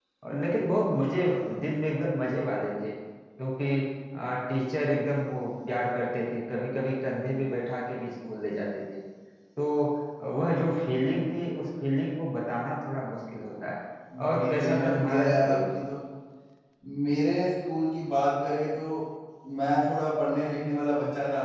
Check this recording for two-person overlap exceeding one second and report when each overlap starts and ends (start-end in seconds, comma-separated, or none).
14.3-15.6